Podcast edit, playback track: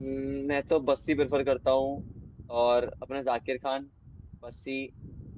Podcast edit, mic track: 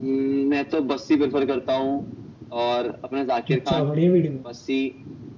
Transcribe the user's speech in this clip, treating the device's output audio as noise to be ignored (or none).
अच्छा बढ़िया वीडियो